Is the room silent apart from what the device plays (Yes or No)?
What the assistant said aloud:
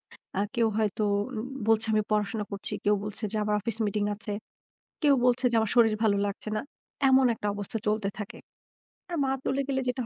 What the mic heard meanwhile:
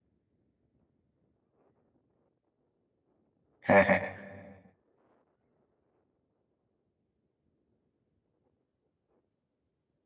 No